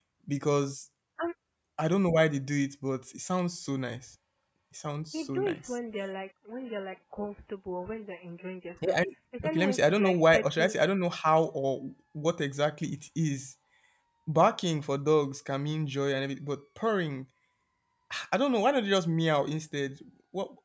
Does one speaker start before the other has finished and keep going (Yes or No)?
Yes